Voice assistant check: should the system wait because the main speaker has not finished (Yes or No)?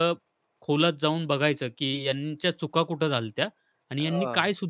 Yes